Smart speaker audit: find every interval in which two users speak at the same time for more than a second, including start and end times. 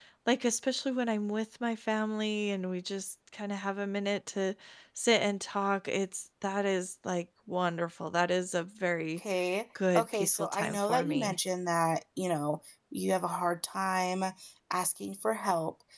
9.9-11.4

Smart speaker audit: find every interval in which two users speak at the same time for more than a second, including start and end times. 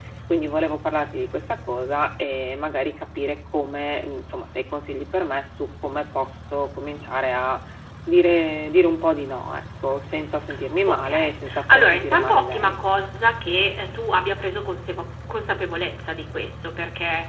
10.9-12.8

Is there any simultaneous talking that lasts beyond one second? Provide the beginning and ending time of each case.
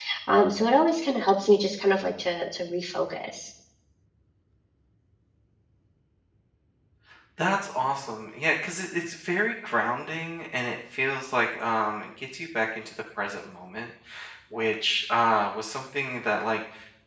none

